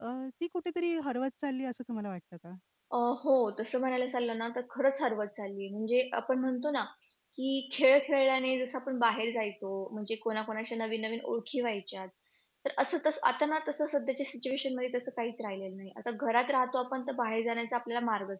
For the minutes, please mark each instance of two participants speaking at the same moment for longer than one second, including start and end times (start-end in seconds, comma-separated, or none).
none